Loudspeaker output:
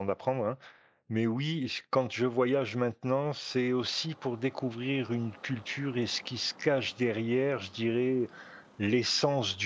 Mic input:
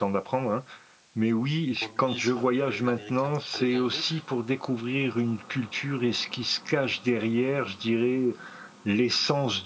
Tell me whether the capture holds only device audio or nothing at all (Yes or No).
No